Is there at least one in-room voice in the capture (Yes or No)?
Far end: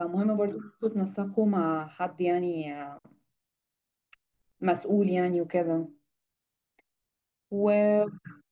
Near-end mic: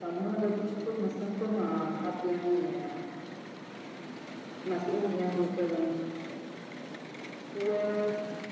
No